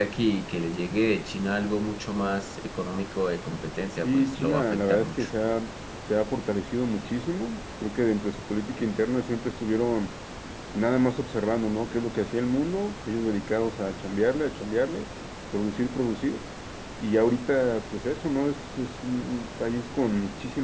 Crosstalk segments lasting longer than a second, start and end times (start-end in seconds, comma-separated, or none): 4.0-5.2